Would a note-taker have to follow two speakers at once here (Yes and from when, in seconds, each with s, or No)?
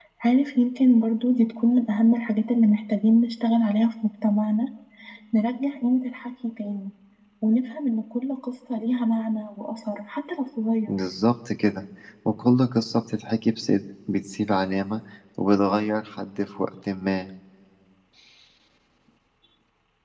No